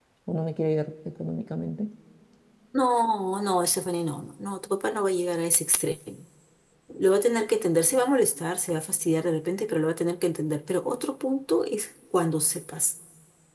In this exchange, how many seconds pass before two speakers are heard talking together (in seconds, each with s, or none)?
none